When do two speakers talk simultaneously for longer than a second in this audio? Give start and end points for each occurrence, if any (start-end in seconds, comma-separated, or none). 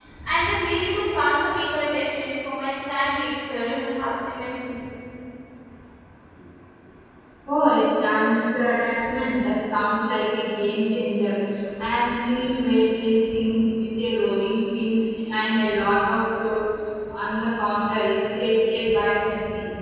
none